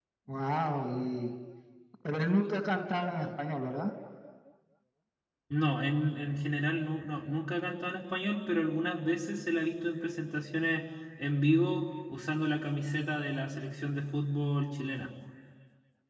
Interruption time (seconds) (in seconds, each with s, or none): none